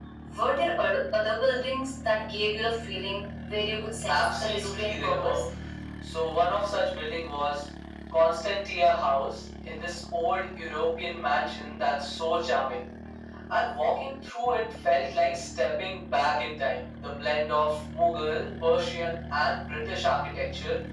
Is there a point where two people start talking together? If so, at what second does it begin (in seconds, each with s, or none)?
4.1 s